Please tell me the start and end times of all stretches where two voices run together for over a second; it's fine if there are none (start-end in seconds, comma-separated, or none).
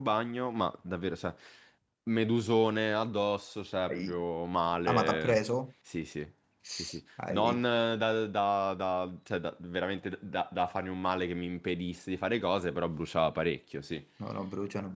none